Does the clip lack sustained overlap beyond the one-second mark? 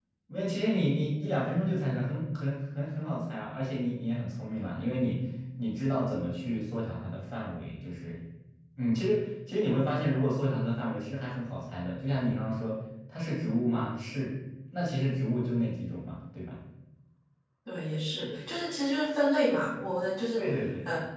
Yes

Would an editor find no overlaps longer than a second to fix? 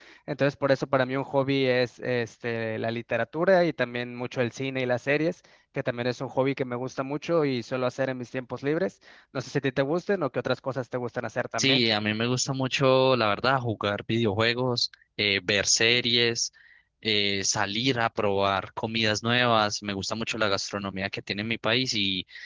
Yes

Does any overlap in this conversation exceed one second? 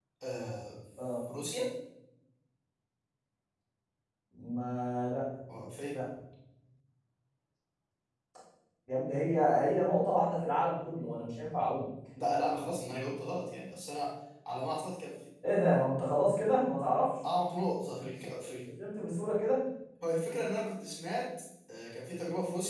No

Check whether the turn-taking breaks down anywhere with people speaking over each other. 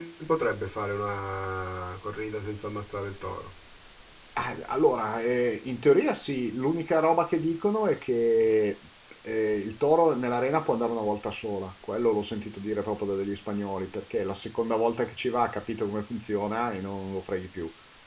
No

